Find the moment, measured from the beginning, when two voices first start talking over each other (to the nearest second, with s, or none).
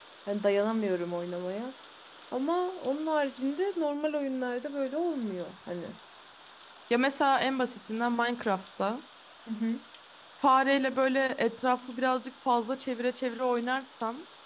none